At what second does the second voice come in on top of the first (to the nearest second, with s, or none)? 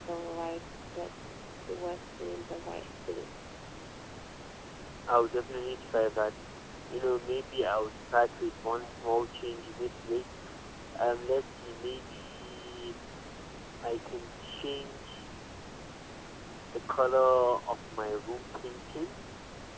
none